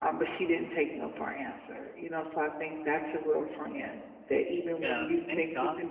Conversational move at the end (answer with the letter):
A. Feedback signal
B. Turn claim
B